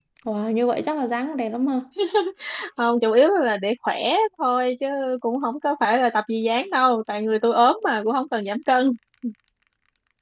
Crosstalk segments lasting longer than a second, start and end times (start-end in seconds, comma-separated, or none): none